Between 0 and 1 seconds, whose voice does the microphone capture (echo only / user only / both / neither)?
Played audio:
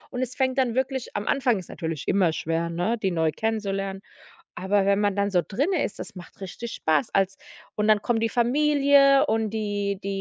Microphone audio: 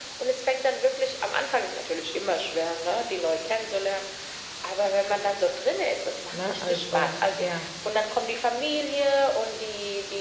echo only